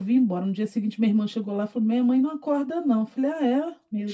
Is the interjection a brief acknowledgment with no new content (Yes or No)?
Yes